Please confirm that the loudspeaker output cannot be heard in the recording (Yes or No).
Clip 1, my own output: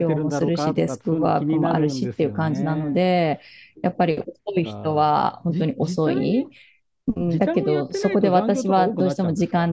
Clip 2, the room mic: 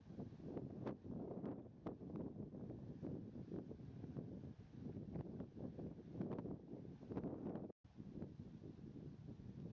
Yes